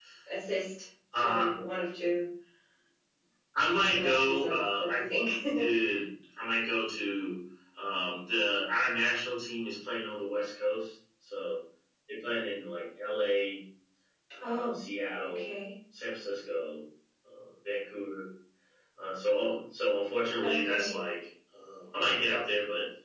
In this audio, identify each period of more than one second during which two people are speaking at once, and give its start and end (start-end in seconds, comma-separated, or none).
3.7-5.0